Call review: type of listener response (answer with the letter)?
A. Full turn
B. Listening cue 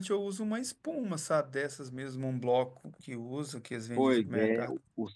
A